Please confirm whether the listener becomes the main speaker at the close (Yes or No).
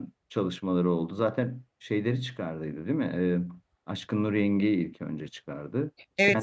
Yes